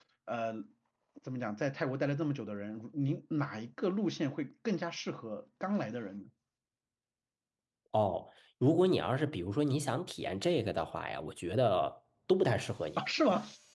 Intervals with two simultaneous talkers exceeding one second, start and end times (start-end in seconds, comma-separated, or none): none